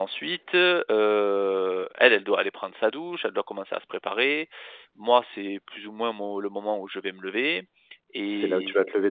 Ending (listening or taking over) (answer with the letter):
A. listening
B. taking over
B